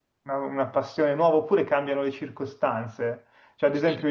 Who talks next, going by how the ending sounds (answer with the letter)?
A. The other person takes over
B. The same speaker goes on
B